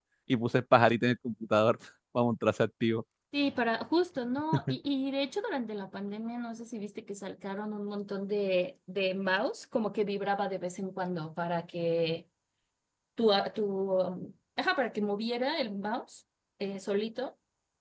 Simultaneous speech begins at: none

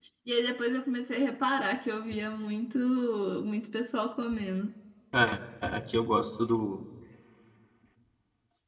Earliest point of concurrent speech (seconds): none

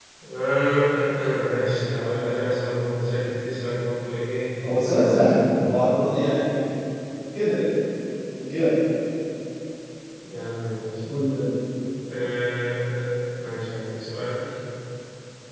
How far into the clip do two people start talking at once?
4.6 s

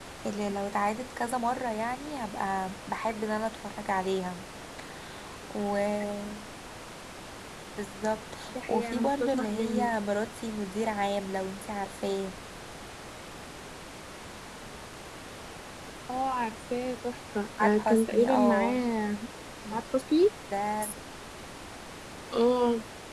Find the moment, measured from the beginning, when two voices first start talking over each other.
8.5 s

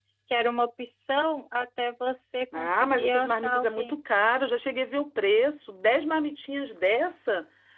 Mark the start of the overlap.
2.5 s

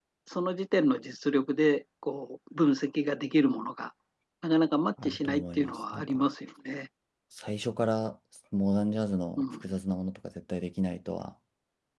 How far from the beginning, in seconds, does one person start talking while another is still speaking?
5.0 s

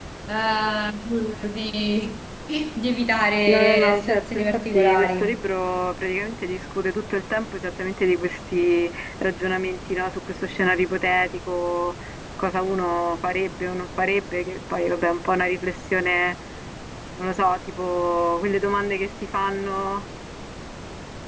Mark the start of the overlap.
3.4 s

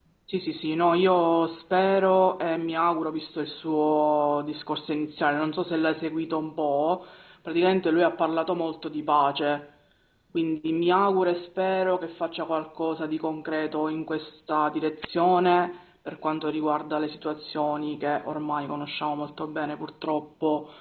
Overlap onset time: none

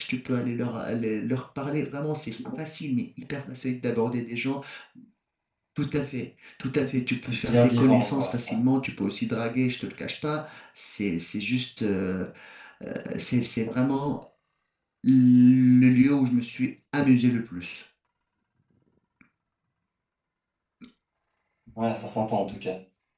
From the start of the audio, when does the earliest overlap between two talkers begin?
7.2 s

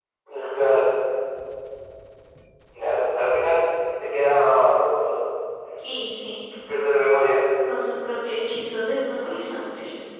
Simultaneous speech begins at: none

